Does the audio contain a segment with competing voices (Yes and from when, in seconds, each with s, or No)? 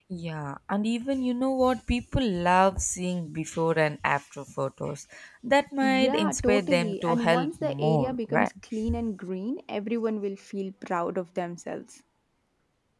Yes, from 5.8 s